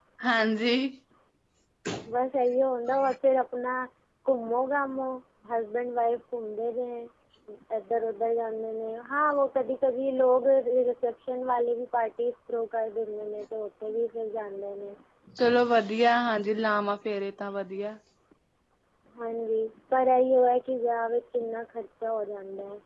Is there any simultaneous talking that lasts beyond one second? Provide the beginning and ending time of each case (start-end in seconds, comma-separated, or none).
none